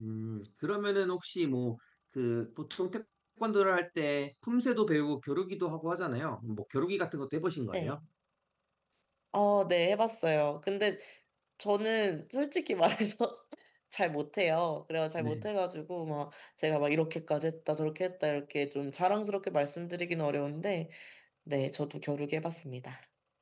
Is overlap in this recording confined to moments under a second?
Yes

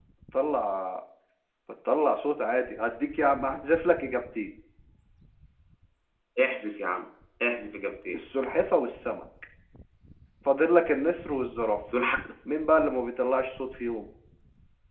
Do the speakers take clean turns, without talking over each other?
Yes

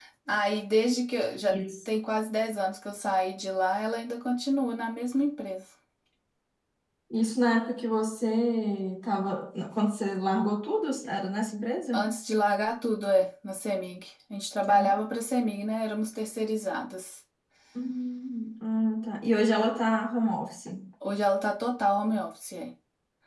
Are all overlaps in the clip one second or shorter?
Yes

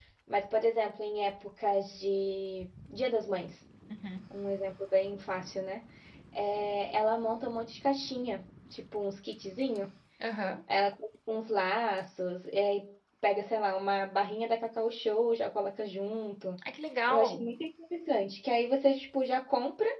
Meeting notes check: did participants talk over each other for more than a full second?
No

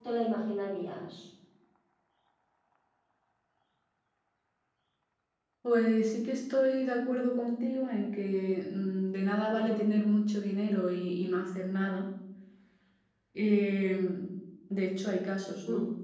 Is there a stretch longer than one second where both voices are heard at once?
No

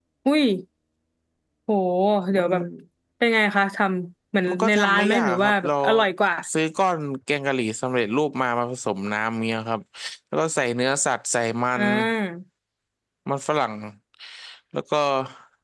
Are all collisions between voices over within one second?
No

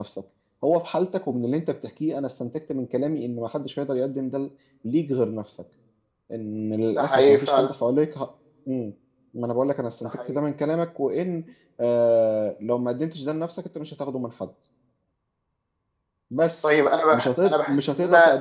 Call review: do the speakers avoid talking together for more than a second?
No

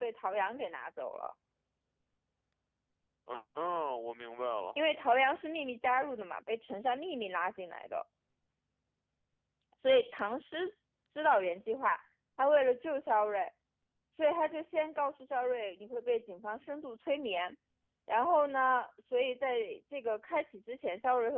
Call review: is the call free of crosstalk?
Yes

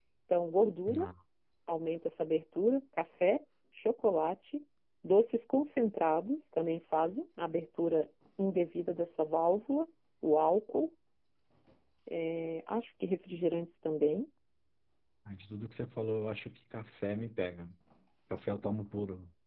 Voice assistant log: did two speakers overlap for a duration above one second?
No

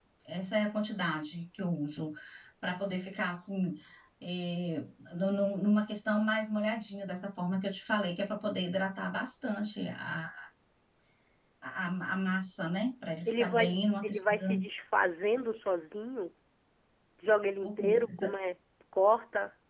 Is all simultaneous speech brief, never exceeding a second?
No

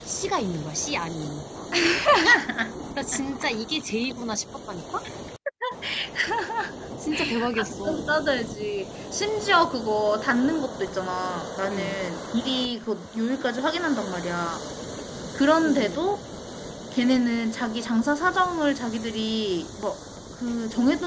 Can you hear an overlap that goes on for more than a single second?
No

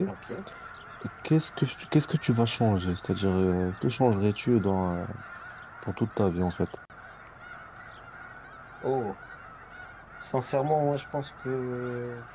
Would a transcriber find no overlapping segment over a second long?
Yes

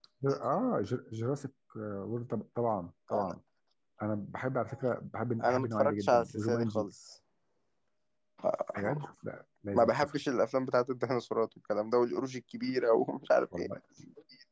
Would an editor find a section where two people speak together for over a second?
Yes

